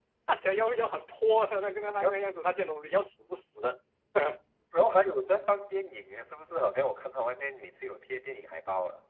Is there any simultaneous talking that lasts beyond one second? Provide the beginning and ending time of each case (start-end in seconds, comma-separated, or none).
none